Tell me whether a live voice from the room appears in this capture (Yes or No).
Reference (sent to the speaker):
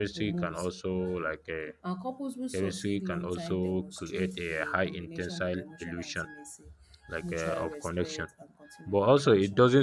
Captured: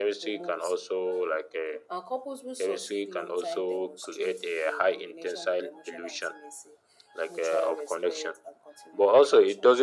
No